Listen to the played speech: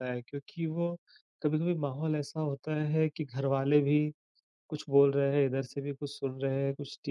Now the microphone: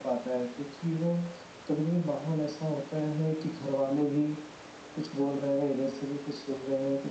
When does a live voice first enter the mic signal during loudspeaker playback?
none

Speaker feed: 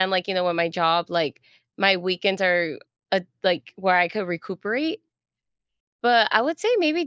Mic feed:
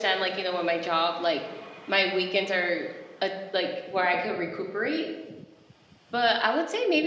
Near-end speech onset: none

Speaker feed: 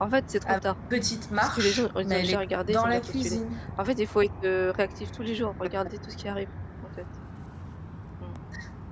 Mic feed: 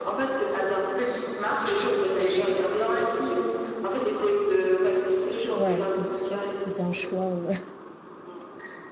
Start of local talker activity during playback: 5.5 s

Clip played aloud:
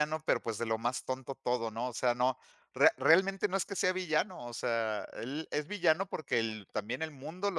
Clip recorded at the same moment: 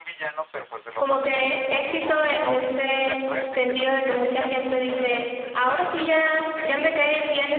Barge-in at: 1.0 s

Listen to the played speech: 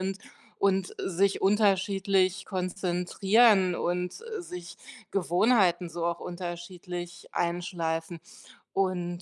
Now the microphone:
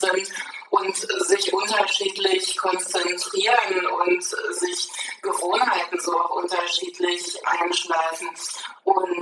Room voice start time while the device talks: none

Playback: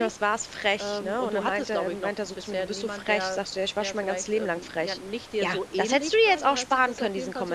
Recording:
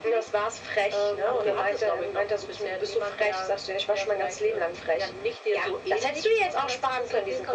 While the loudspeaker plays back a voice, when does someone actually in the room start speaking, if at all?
1.2 s

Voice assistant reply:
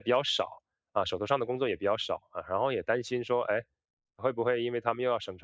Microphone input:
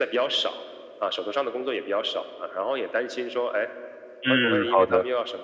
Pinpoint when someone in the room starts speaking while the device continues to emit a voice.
4.2 s

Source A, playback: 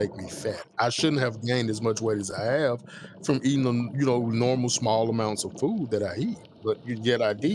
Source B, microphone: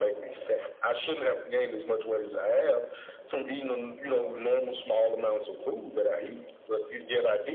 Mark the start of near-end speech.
none

